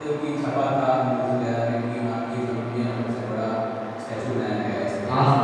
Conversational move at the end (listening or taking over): taking over